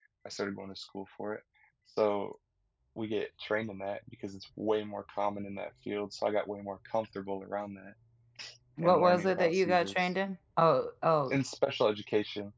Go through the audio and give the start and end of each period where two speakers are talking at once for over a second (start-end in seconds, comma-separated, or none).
8.8-10.1